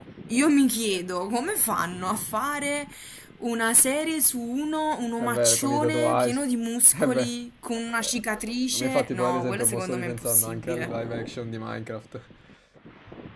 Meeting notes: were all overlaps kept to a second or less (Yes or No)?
No